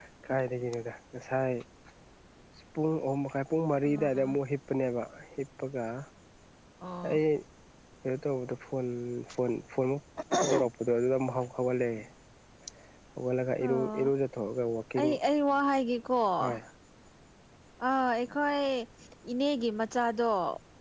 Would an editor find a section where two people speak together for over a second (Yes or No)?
No